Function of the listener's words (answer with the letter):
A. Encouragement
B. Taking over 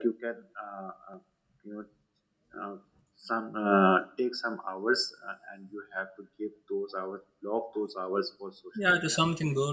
B